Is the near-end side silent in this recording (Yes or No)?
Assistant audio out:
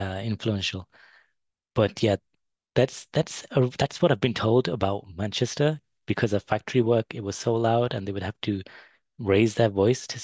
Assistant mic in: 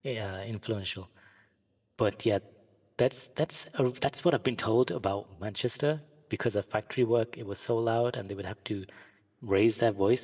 Yes